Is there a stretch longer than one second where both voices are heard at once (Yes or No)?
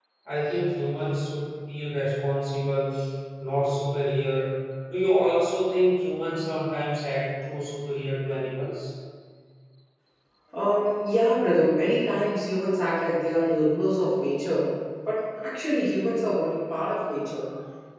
No